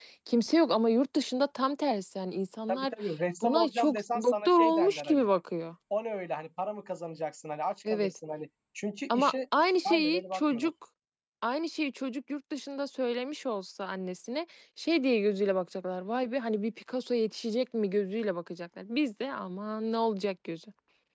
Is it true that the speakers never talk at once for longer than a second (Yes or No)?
No